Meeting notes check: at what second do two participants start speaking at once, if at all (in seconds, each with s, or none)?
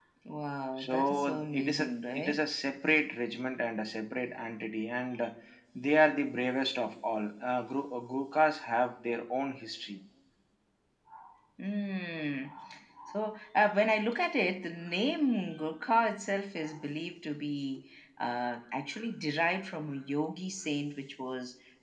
0.8 s